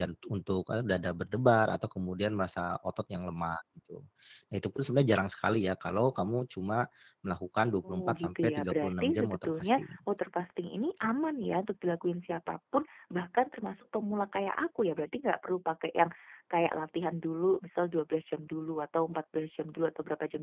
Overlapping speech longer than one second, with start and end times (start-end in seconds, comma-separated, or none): 7.8-9.9